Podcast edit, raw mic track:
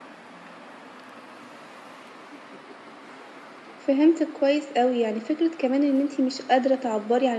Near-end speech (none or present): present